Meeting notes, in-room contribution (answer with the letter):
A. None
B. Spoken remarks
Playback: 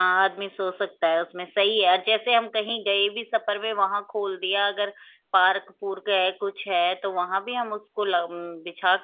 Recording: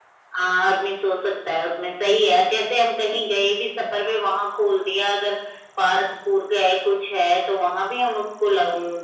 A